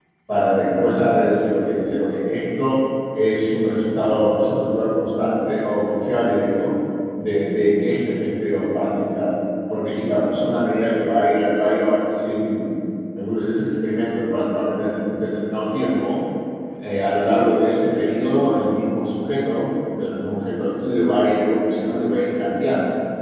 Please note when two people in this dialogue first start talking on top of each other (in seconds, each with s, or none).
none